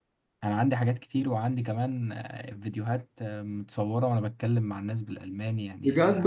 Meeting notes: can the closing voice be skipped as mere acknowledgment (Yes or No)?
No